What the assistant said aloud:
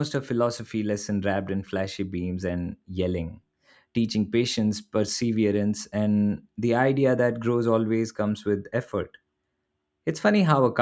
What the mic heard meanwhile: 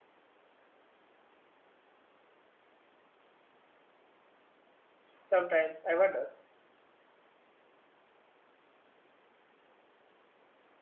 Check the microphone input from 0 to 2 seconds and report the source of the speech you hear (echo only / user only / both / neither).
neither